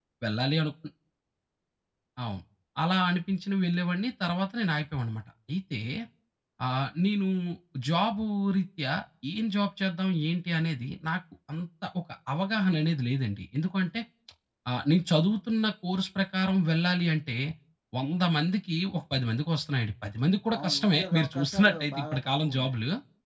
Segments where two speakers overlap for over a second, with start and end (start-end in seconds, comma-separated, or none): 20.6-22.7